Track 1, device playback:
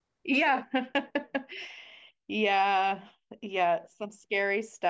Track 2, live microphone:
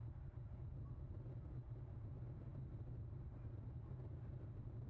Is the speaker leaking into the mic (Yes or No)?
No